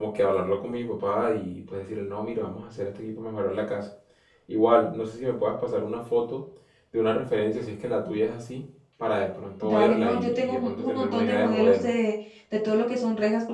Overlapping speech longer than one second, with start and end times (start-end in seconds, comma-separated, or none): 9.6-11.9